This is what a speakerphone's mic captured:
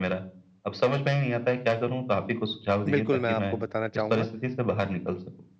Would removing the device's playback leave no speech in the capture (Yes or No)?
No